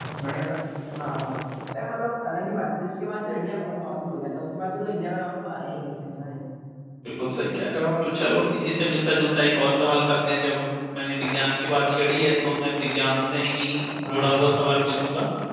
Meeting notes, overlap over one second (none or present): none